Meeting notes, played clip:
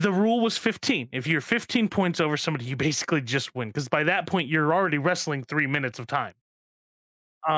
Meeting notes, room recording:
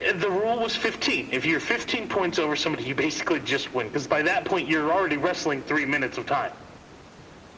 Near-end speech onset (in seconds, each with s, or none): none